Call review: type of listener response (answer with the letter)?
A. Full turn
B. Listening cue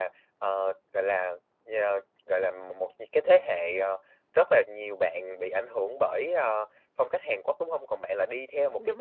B